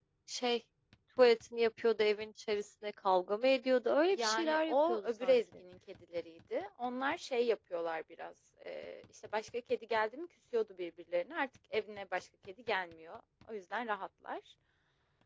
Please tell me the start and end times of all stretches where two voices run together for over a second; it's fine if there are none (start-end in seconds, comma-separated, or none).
4.2-5.4